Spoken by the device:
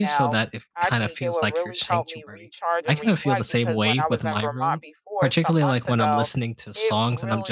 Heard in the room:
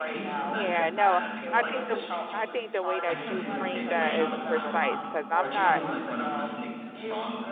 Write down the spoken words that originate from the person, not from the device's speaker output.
Yeah, no, I think the I think the way that you framed that is precise because I'm not

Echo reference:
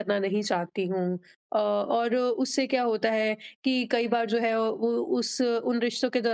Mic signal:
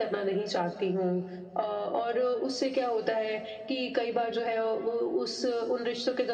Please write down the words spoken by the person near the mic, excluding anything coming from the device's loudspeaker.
none

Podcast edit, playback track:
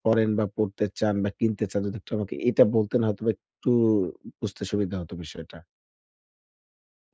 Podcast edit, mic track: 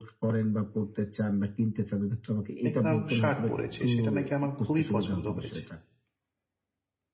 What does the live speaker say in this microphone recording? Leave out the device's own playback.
দেখলাম শার্ট পরেছে। সেটা নাকি আমার খুবই পছন্দ হয়েছে।

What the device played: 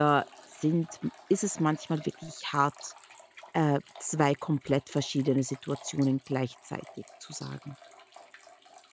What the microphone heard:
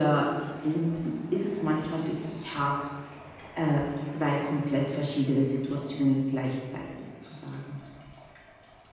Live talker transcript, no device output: none

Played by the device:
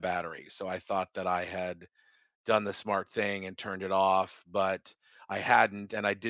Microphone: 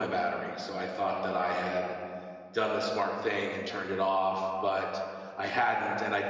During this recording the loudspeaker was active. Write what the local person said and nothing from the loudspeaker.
none

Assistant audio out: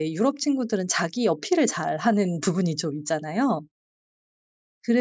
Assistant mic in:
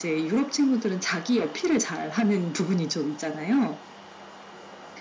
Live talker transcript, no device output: none

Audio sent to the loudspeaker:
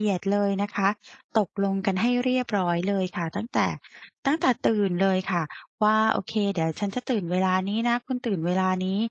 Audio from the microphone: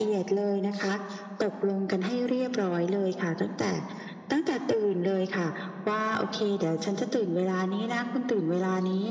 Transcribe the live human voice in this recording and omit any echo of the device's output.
none

